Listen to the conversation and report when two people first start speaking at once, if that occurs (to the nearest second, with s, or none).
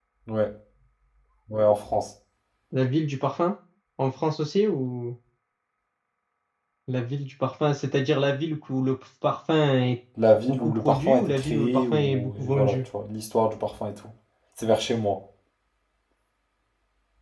10 s